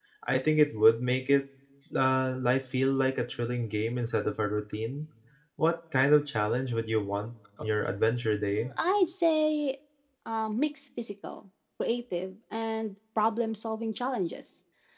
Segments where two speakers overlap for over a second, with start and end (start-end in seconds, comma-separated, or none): none